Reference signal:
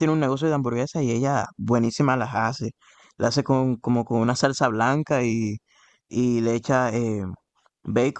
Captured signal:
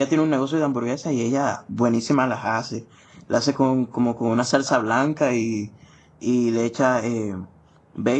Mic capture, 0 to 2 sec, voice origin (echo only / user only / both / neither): echo only